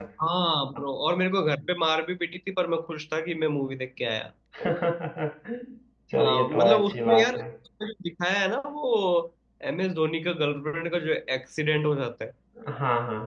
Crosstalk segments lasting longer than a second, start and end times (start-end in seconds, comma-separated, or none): 6.2-7.4